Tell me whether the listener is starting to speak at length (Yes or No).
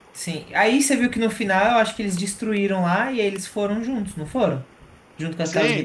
Yes